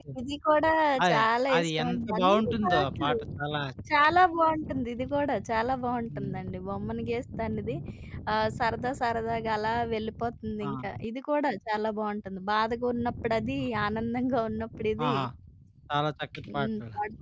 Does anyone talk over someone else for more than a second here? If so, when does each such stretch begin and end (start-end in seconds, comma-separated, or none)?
1.6-3.1